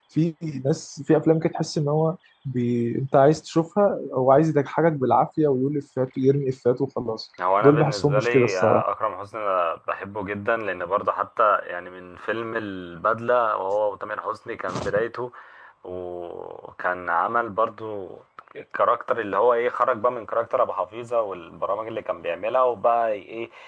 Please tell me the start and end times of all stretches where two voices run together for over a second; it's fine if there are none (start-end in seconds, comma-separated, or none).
7.6-8.8